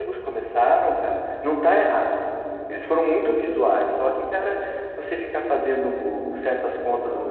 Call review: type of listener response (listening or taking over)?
taking over